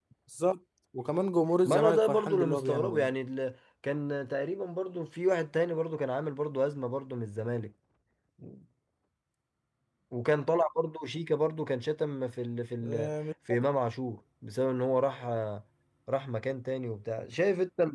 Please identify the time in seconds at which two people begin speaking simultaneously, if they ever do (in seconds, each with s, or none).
1.6 s